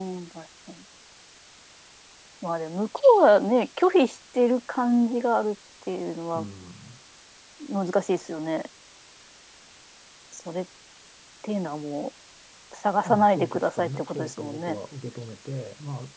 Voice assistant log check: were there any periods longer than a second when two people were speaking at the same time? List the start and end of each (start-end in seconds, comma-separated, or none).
13.1-14.8